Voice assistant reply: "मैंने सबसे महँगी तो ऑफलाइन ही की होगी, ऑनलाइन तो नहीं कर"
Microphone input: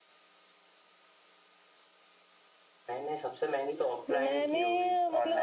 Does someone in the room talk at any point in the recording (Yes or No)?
Yes